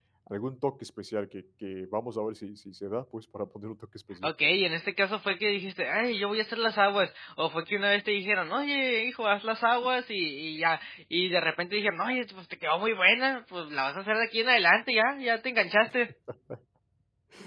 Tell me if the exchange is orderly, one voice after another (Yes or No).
Yes